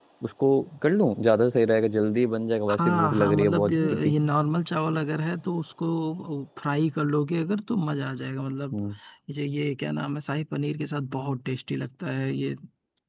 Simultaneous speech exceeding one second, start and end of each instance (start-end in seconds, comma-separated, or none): 2.8-4.2